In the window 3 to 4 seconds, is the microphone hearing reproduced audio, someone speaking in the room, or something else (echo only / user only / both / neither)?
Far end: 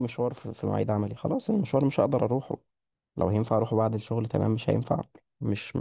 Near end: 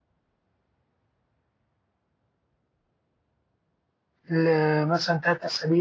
neither